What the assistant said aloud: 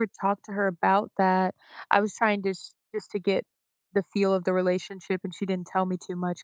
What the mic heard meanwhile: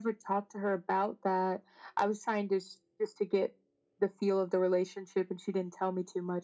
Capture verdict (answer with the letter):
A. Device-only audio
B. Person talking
A